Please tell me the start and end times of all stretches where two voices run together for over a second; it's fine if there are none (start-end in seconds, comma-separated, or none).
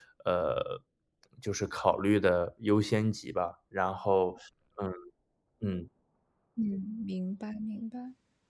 none